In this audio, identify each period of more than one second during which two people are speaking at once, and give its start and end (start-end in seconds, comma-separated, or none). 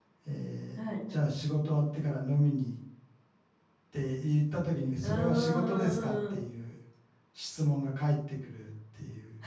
5.0-6.4